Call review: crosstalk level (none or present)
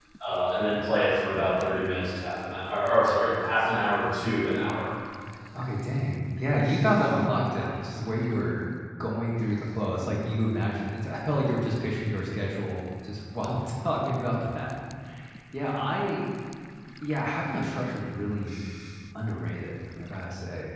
none